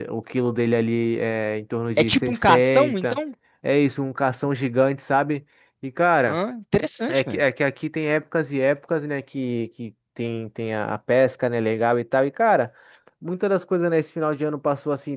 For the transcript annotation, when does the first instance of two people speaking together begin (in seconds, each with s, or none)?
2.0 s